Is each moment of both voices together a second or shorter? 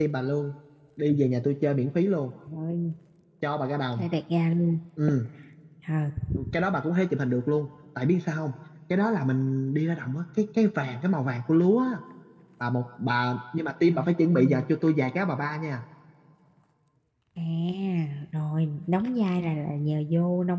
Yes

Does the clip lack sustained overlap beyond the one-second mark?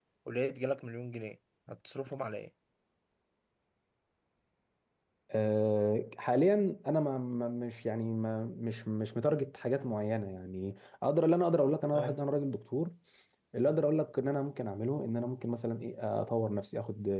Yes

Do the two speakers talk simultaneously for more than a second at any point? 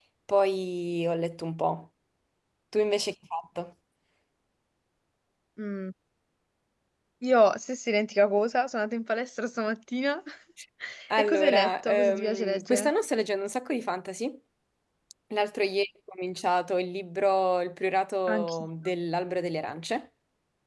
Yes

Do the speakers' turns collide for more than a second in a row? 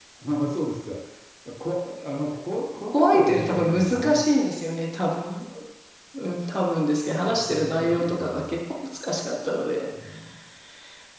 Yes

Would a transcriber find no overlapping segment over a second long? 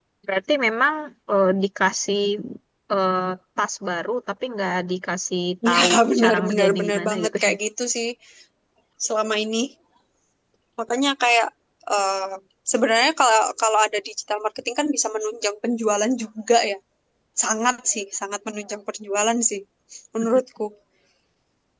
No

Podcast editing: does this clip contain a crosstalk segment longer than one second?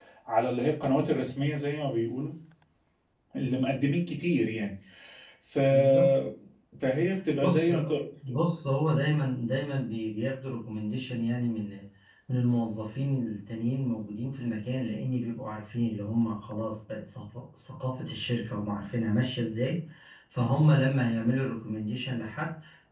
No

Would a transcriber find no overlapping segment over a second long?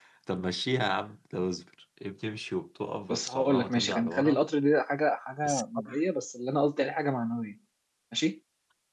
No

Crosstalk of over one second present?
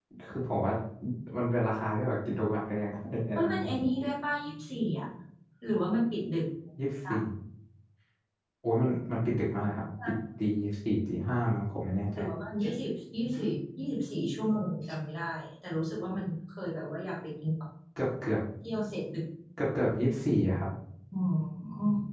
No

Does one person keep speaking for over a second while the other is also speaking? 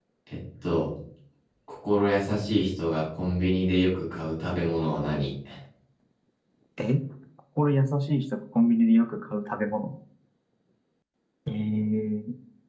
No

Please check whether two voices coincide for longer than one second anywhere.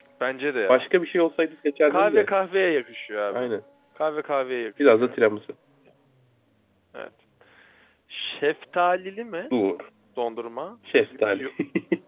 No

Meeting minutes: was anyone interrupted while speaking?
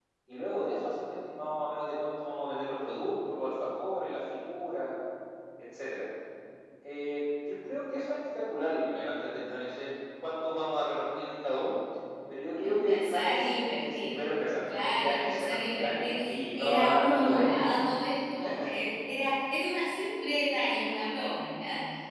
Yes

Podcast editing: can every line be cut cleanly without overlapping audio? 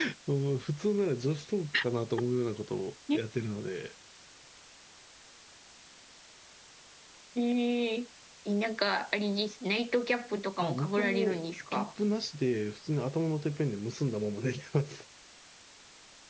No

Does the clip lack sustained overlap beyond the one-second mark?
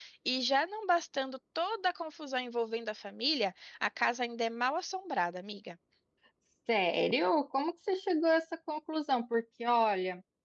Yes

